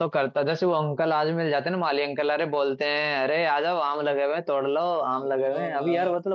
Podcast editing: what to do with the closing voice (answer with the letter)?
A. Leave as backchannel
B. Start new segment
A